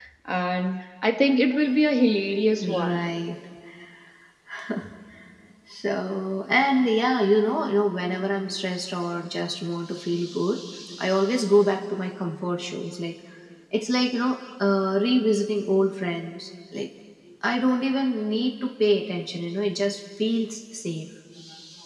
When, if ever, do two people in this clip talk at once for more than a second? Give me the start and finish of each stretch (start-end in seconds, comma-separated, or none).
none